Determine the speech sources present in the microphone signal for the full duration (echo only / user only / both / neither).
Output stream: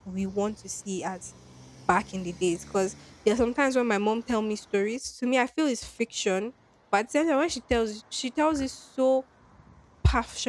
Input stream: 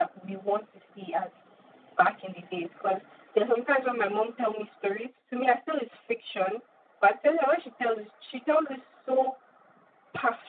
echo only